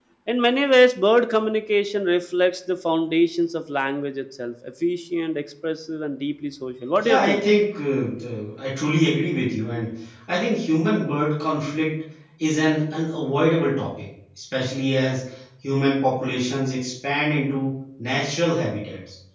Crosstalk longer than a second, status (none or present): none